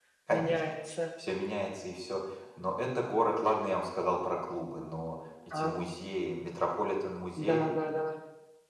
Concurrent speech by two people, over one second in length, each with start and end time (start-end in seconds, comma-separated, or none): none